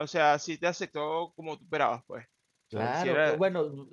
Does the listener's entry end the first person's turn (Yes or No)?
Yes